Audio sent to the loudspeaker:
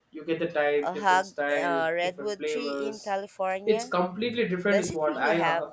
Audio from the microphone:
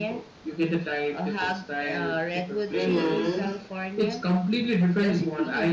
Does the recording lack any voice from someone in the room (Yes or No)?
No